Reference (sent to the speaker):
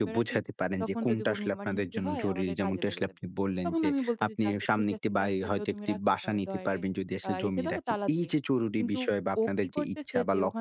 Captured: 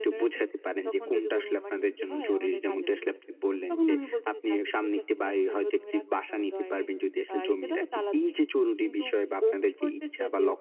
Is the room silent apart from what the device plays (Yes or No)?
Yes